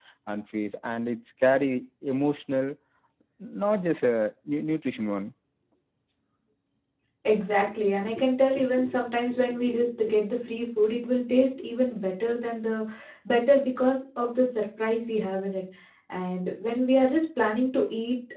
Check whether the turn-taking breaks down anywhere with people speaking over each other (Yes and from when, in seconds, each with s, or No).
No